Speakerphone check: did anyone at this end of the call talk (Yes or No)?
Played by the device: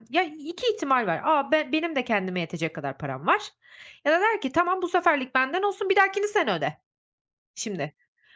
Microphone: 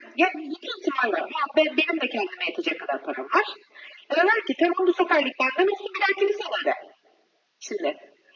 No